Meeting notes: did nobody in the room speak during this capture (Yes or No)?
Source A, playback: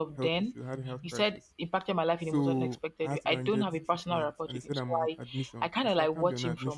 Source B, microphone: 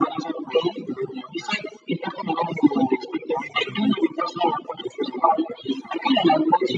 Yes